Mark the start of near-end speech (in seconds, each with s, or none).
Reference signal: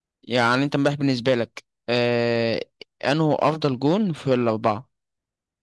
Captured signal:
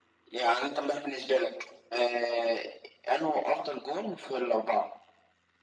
none